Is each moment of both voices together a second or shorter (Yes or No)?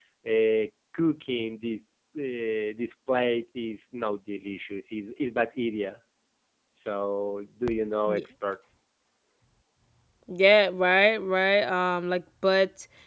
Yes